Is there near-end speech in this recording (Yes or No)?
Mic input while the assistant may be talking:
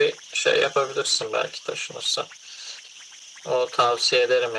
No